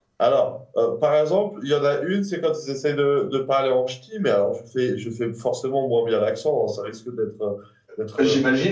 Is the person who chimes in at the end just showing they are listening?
Yes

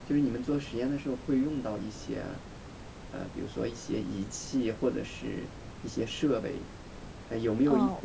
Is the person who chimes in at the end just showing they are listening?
Yes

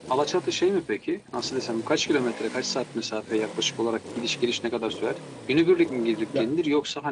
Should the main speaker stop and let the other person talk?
No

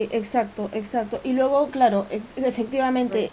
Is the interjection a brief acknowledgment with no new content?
Yes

